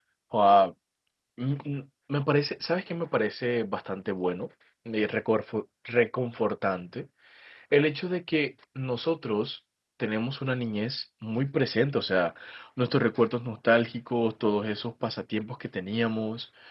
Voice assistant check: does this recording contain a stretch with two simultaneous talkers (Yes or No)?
No